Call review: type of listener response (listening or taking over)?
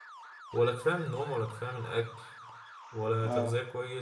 listening